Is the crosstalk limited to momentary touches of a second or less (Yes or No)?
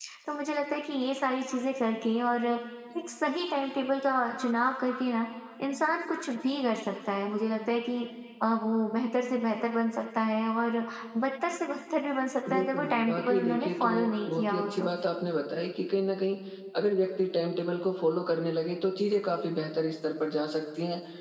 No